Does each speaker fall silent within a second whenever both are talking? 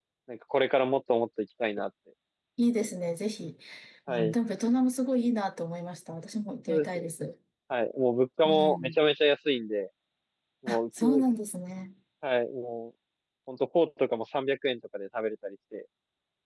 Yes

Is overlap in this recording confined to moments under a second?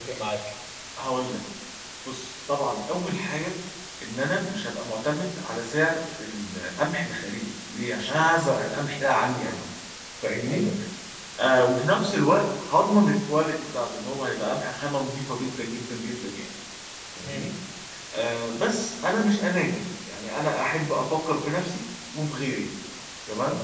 Yes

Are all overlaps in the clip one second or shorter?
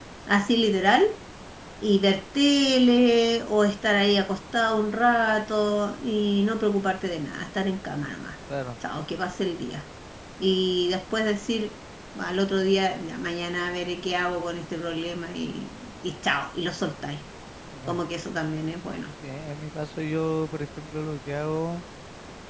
Yes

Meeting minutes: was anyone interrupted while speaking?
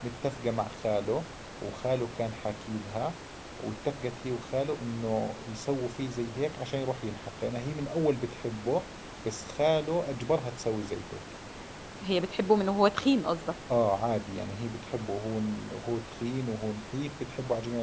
No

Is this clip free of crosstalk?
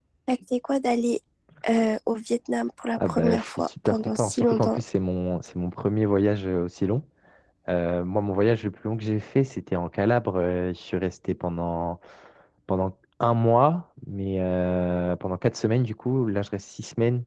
No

